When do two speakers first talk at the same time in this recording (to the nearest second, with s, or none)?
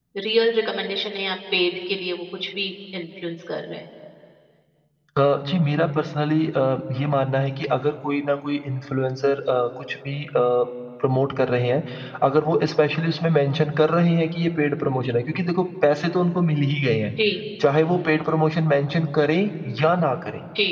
none